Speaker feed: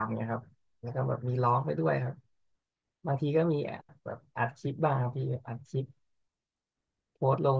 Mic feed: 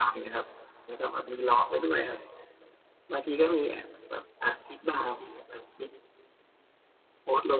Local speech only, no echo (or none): none